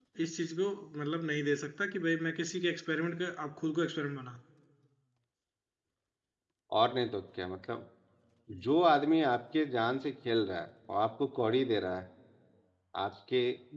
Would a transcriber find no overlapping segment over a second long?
Yes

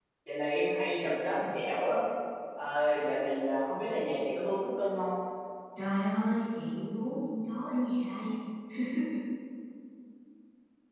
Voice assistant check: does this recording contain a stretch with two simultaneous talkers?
No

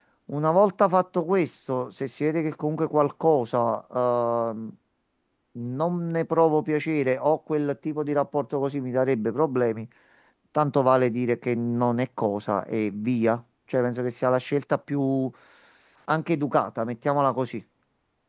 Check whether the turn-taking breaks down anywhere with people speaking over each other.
No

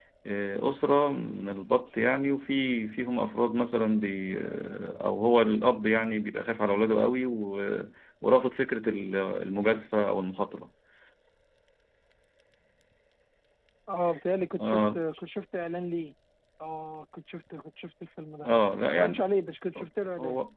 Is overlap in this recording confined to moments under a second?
Yes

